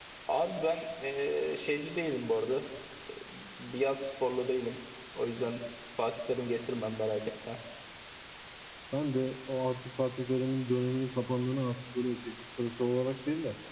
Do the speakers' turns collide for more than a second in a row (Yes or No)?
No